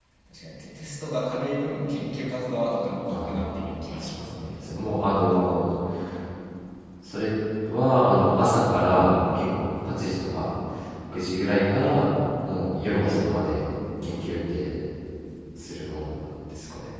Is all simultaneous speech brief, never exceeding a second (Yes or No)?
No